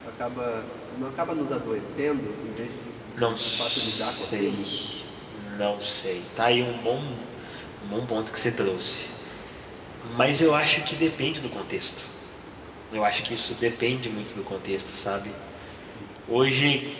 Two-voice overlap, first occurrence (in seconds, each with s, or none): 3.2 s